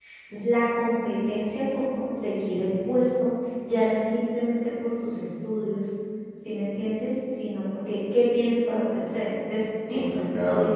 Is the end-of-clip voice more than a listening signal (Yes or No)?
Yes